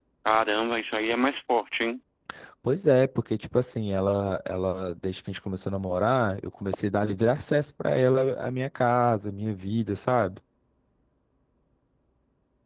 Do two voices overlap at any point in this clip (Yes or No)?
No